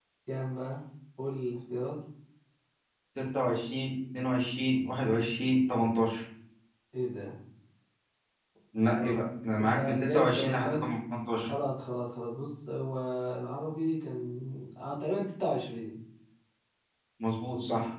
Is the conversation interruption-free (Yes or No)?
No